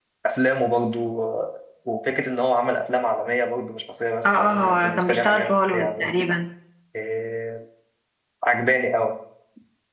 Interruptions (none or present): present